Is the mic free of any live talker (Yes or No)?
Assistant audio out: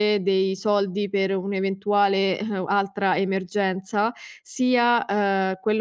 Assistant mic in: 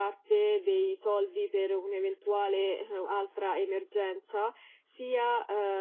Yes